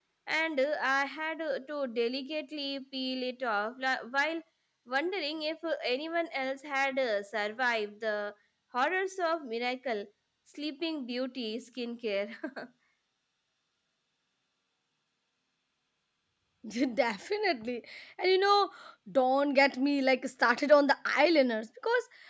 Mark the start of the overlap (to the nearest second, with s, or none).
none